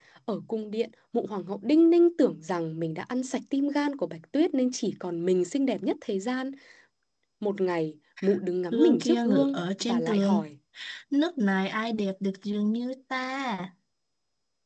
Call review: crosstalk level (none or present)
present